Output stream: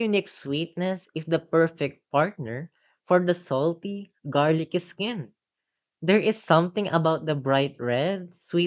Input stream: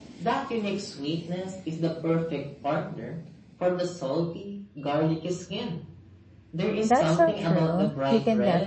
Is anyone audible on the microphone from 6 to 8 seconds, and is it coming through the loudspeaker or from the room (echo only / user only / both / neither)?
both